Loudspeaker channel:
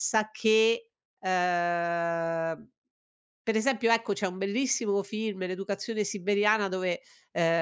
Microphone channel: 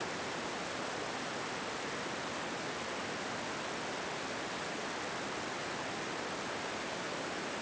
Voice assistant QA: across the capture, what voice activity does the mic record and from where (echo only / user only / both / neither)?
neither